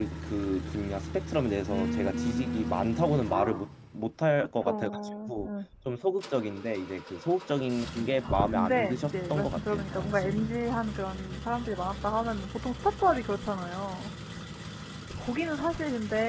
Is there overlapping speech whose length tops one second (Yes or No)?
Yes